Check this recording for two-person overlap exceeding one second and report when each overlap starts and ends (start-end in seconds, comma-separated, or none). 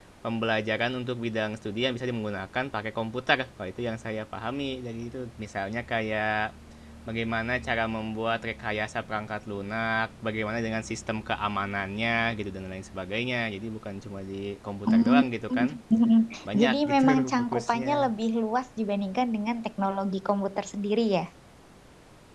16.6-18.1